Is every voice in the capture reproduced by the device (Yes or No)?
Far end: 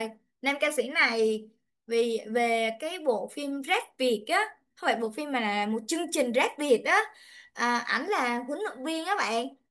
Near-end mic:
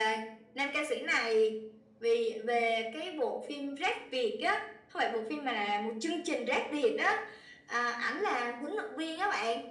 Yes